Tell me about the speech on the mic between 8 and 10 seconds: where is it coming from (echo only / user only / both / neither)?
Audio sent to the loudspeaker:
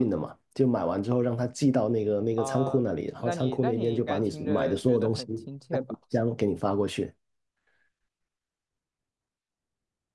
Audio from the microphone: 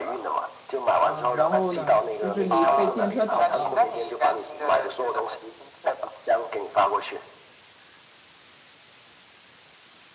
neither